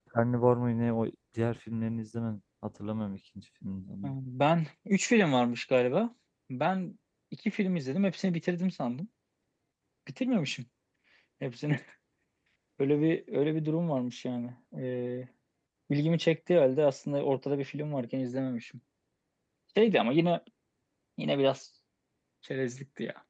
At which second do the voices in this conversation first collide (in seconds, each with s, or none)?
none